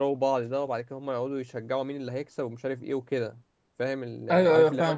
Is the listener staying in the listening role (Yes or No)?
No